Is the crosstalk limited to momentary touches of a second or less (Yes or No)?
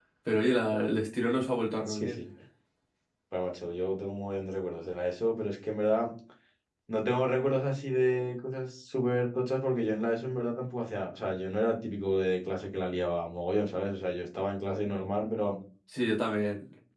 Yes